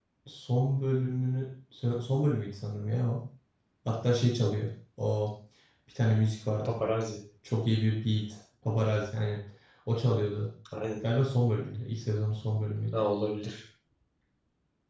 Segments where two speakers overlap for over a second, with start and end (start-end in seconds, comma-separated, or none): none